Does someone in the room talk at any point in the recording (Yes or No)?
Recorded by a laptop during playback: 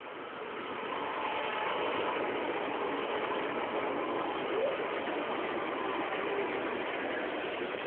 No